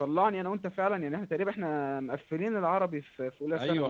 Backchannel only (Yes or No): No